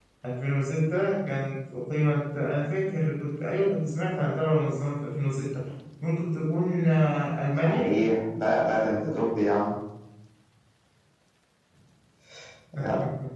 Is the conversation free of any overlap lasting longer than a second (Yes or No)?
Yes